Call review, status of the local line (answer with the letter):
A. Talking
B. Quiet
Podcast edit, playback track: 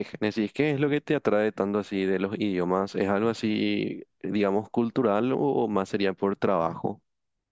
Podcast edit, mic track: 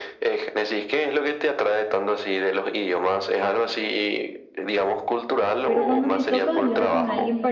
A